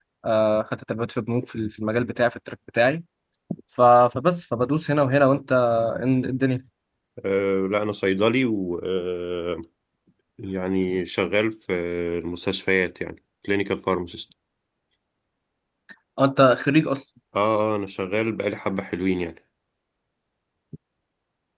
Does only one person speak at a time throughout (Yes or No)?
Yes